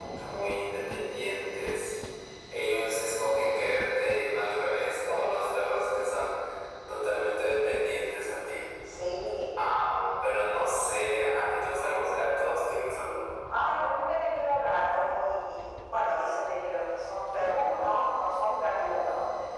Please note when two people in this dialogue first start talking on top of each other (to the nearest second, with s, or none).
none